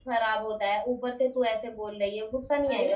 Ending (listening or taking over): taking over